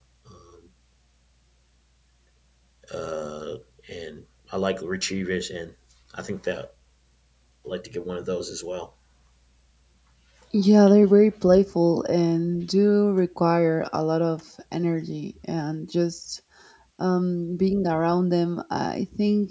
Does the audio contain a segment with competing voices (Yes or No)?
No